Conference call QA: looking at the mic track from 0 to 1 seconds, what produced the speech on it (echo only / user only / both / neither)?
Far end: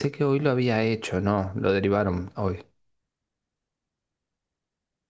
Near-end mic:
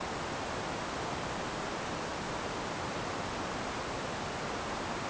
neither